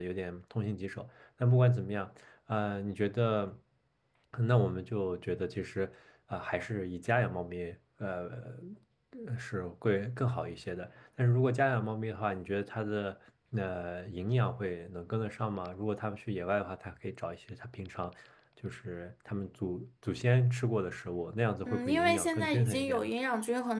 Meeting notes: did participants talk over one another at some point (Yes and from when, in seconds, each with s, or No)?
Yes, from 21.7 s